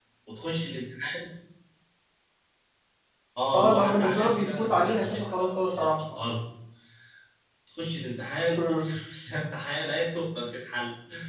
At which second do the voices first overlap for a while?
3.5 s

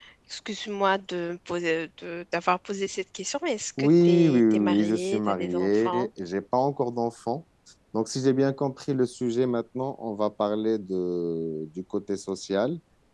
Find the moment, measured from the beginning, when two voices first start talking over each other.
3.8 s

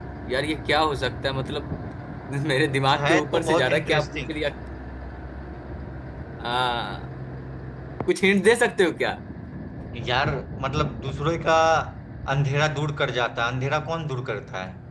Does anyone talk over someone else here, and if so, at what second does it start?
2.9 s

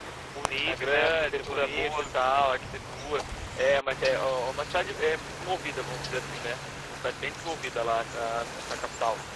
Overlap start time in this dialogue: 0.7 s

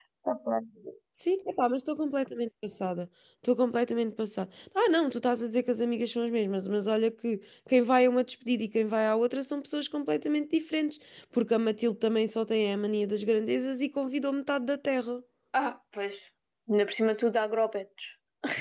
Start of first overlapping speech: none

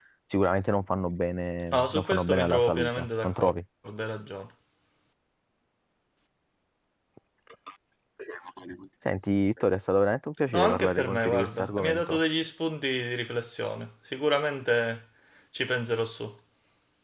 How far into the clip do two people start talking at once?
1.7 s

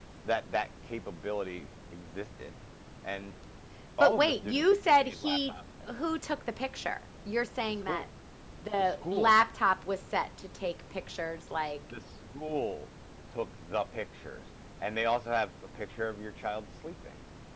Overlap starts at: 4.0 s

